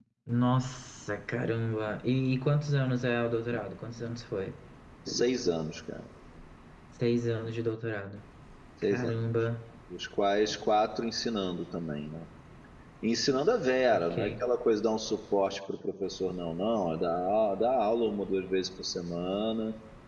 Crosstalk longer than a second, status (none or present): none